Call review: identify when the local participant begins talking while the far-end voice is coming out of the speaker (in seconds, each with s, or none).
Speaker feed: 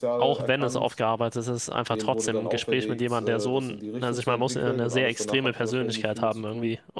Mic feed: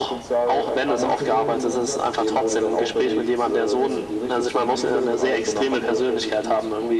0.9 s